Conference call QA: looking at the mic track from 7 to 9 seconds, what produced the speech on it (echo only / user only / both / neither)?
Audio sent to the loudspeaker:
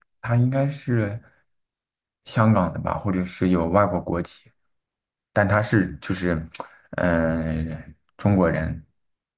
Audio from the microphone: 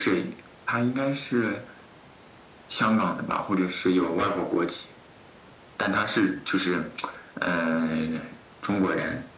echo only